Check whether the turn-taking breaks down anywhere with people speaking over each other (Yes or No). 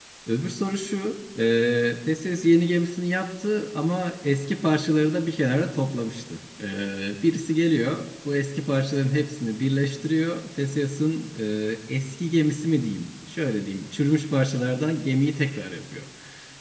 No